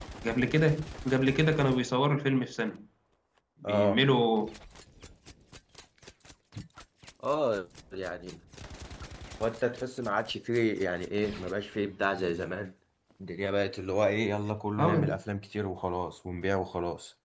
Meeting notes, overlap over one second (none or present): none